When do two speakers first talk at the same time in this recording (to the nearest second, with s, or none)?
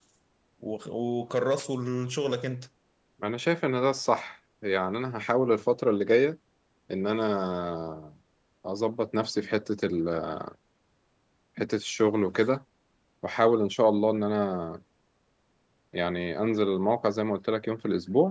none